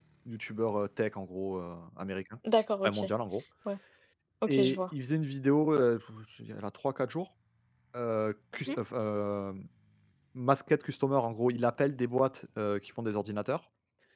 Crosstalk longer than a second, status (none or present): none